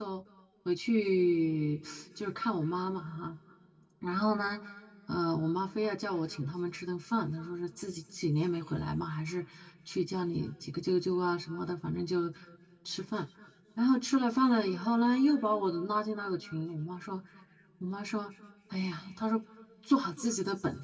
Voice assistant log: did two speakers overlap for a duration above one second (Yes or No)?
No